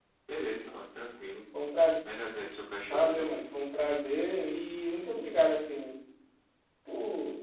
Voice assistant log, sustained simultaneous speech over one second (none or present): none